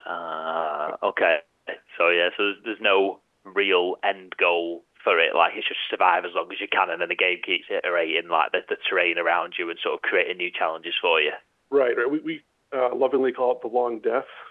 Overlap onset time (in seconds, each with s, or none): none